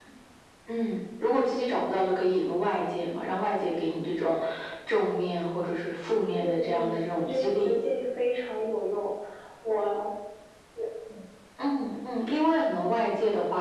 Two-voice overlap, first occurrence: 6.4 s

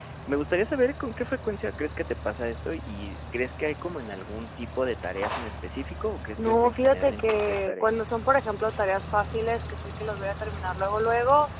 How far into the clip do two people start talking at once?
6.4 s

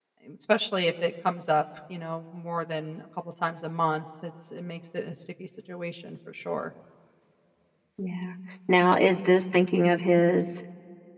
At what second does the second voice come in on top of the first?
none

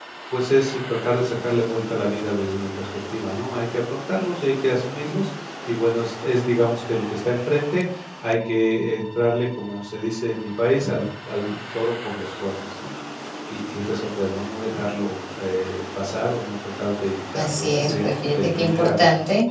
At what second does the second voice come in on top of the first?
17.4 s

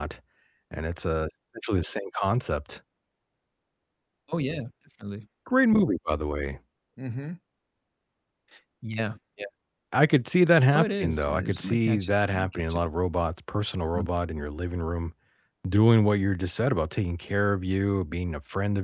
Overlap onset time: 10.7 s

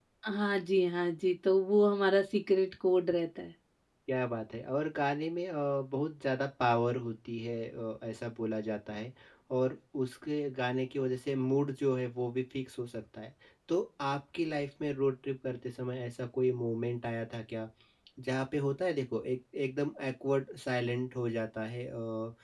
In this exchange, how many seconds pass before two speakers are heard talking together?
none

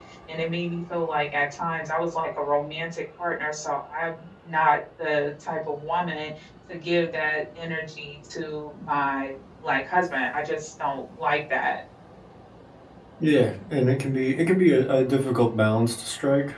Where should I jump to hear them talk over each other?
none

